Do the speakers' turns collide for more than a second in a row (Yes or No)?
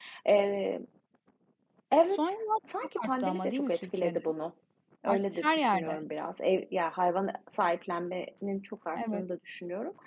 Yes